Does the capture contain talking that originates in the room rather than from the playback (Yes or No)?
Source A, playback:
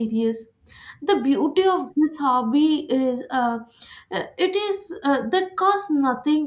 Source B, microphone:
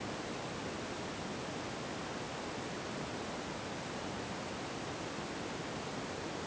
No